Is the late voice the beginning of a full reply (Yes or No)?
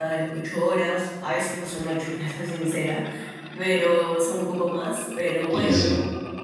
No